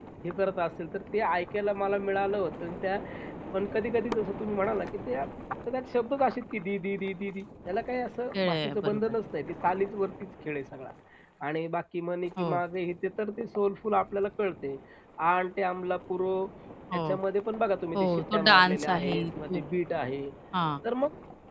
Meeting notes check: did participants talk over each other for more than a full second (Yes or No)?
Yes